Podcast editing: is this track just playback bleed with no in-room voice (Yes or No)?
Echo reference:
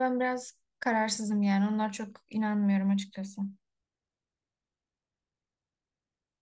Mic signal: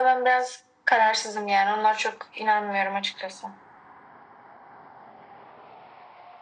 Yes